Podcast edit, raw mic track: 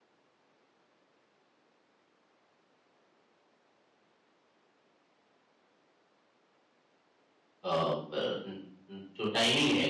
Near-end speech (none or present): present